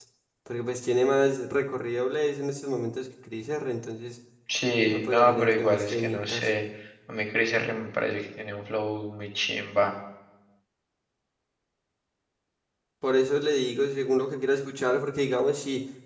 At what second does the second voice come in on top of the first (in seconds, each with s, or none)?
4.9 s